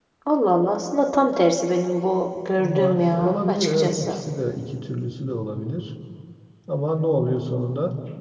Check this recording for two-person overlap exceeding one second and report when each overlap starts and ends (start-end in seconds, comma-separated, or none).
2.6-4.2